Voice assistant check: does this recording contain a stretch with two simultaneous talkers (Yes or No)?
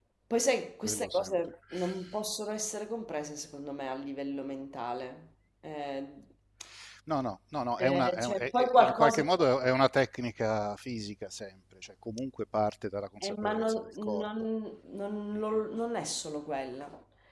Yes